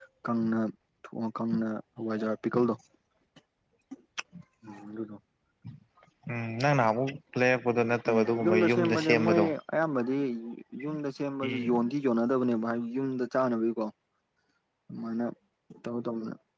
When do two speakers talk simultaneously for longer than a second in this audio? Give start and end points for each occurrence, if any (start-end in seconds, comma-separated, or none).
8.1-9.4